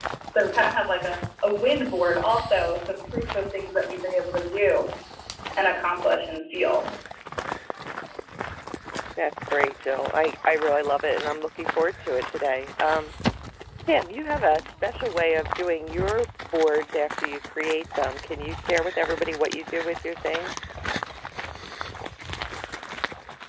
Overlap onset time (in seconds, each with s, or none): none